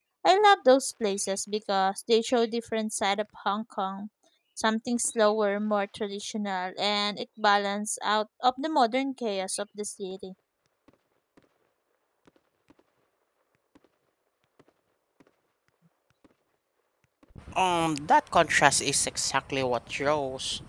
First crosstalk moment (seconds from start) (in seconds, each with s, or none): none